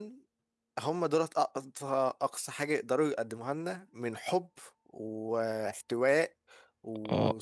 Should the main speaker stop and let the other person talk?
Yes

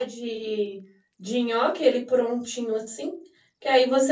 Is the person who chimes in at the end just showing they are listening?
Yes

